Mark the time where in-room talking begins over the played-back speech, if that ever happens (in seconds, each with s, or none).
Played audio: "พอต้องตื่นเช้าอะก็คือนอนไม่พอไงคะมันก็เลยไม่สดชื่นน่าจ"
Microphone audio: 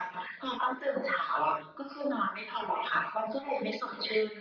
none